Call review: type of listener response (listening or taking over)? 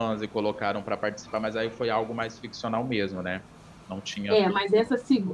taking over